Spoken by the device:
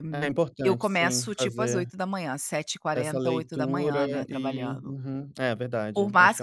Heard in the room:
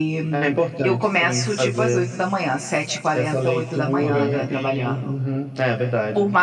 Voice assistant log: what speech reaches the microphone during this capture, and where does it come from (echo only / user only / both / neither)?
both